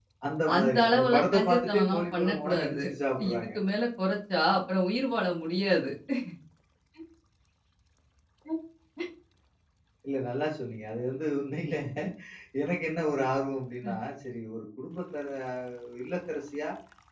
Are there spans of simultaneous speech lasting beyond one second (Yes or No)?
Yes